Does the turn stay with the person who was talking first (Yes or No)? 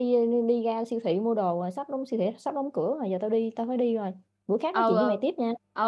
No